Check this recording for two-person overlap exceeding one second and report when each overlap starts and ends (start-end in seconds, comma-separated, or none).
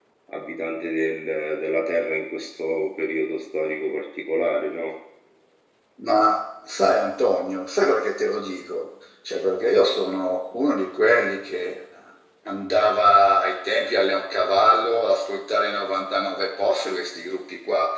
none